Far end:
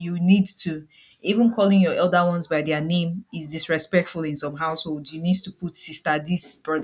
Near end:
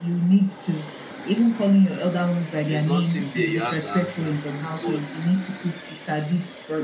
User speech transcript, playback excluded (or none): there's nothing there you have to answer but